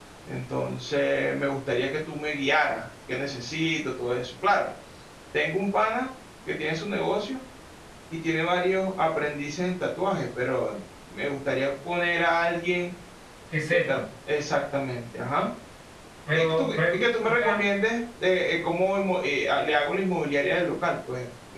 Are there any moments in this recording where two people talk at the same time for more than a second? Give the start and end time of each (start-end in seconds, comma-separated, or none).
16.3-17.7